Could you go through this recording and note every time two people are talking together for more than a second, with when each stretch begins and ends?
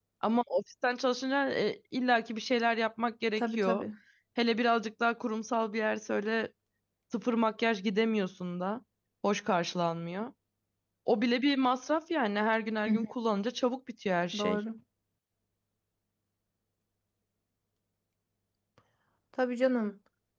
none

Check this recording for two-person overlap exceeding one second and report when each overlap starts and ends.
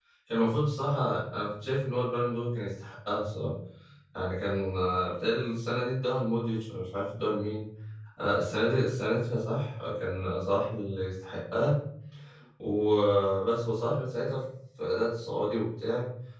none

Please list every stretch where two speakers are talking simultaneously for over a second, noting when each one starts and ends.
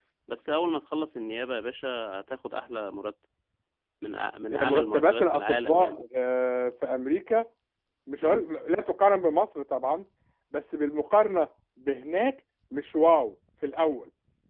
4.5-6.0

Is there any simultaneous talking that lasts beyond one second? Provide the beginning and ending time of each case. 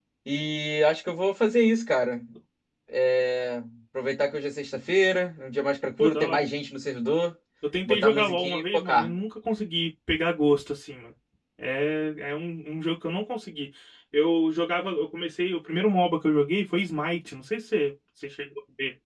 7.8-9.1

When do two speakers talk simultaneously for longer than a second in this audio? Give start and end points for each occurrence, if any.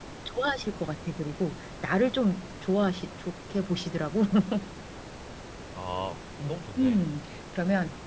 none

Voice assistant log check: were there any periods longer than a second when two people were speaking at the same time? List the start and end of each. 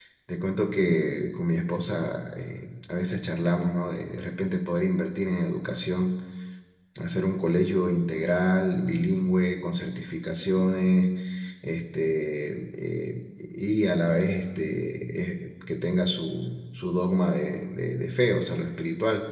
none

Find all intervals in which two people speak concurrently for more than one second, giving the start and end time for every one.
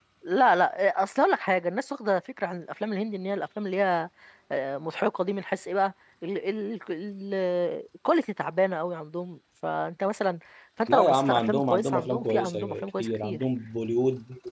10.9-13.4

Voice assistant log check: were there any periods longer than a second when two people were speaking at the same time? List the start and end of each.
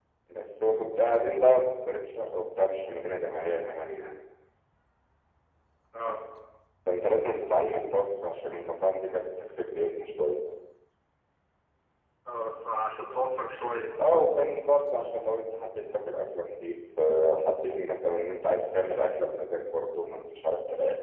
none

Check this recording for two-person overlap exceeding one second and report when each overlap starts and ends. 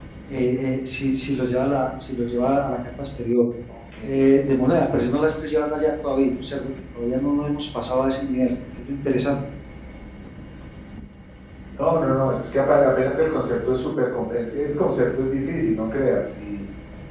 none

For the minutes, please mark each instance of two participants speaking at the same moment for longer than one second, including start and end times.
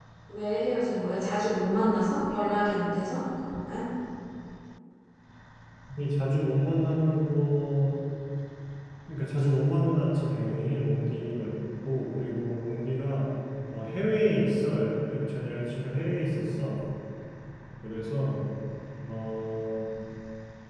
none

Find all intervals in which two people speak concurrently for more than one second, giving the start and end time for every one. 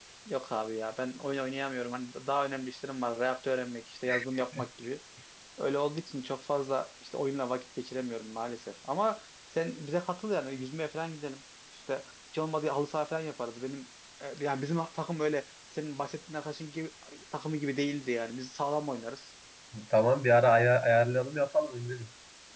none

